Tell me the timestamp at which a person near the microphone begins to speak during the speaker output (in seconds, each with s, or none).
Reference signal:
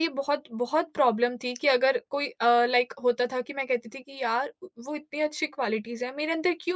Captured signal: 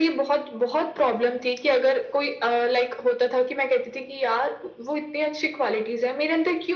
none